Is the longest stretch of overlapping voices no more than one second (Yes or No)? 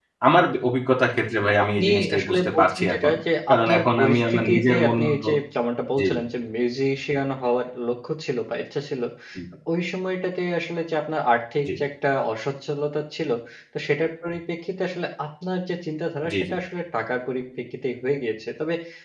No